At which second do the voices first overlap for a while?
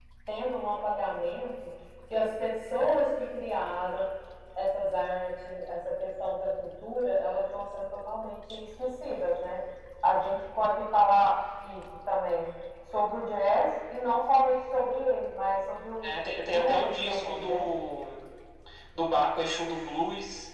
16.0 s

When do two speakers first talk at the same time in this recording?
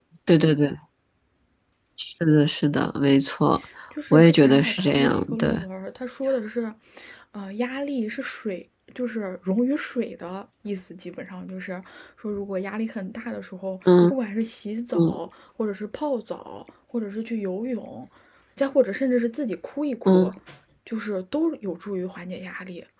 4.1 s

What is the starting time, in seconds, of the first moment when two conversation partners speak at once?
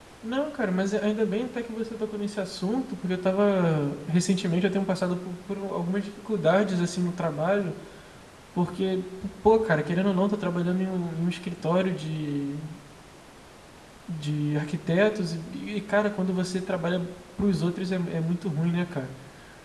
none

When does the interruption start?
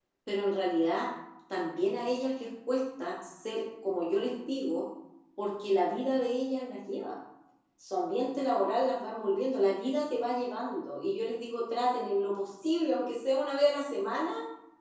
none

